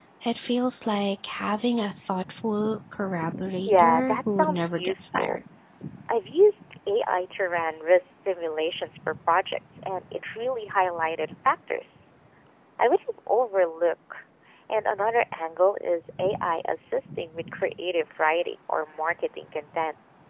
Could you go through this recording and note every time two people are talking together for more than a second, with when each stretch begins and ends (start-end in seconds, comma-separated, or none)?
3.6-5.4